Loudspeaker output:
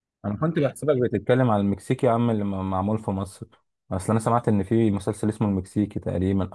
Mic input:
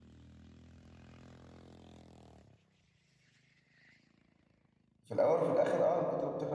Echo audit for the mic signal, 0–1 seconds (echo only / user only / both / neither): neither